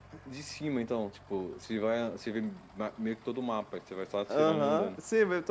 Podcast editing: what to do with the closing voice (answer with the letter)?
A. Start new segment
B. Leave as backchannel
A